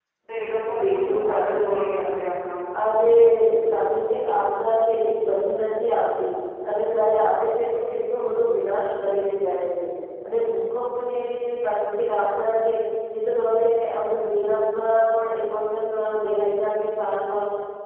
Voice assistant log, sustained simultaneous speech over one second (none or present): present